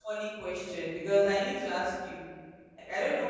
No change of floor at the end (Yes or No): Yes